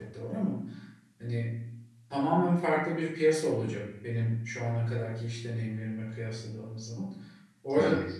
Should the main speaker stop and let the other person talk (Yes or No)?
No